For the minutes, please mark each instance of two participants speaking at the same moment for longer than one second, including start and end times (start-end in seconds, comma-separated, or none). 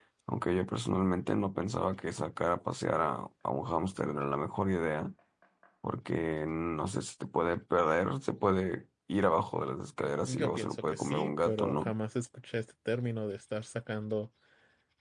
10.3-11.9